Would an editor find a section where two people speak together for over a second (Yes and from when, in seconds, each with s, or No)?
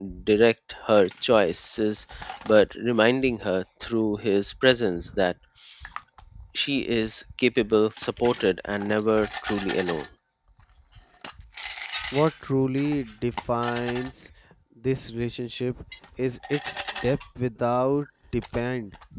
No